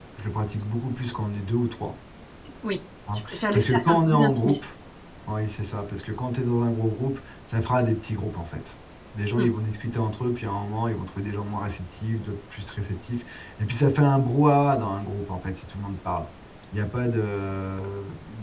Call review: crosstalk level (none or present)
present